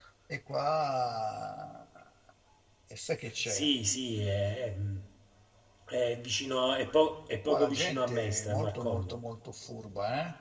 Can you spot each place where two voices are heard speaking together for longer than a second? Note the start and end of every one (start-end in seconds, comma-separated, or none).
7.4-9.1